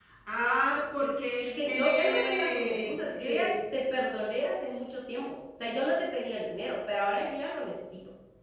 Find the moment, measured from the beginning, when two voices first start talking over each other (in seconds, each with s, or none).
1.6 s